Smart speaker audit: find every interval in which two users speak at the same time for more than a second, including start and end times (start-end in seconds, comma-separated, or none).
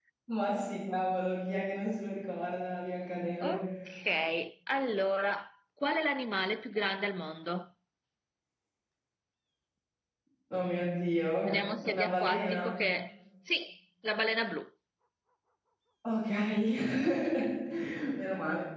11.4-12.8